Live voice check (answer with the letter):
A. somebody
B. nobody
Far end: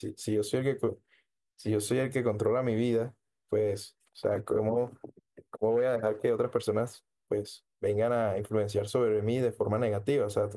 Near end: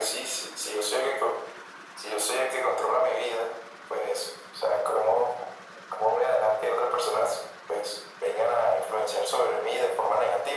B